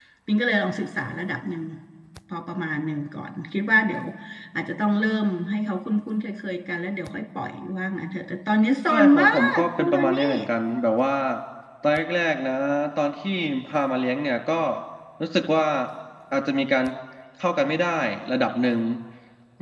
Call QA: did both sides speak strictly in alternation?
No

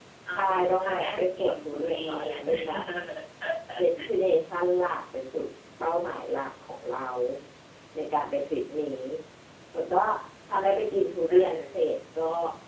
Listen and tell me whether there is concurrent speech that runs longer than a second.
Yes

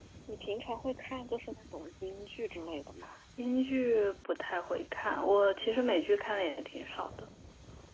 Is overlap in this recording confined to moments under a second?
Yes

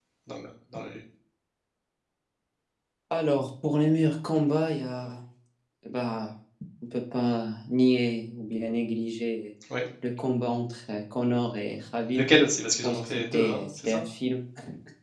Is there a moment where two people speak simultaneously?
Yes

